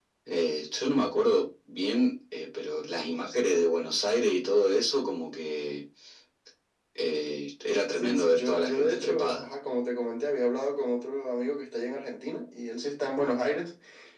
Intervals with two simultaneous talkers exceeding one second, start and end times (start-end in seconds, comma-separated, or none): 7.9-9.5